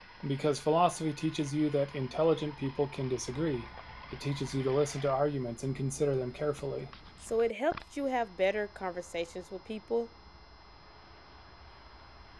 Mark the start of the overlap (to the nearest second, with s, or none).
none